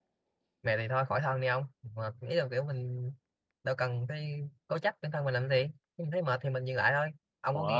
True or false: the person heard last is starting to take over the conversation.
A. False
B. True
A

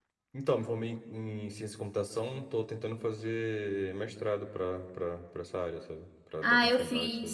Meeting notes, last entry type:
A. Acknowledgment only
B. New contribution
B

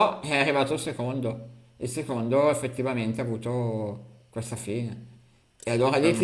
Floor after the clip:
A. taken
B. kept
B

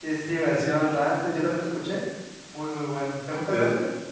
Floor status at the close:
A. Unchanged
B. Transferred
B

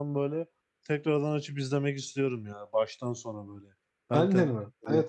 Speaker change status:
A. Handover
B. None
A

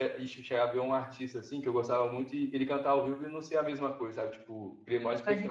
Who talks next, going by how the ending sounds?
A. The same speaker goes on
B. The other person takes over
A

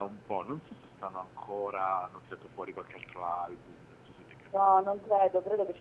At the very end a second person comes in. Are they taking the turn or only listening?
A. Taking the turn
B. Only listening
A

